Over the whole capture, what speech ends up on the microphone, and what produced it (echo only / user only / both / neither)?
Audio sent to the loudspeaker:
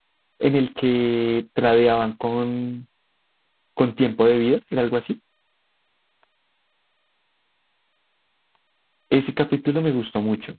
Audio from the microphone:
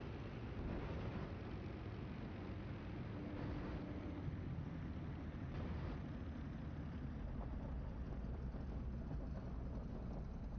neither